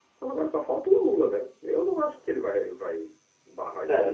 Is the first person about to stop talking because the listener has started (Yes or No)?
Yes